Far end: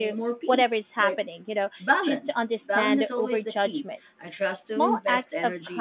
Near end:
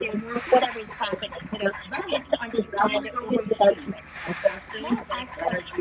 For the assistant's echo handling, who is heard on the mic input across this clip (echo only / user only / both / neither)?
echo only